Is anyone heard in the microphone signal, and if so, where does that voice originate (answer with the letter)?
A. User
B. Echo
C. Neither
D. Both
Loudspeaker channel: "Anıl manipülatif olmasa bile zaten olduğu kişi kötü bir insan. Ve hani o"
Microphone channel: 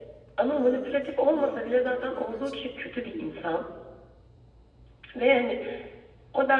D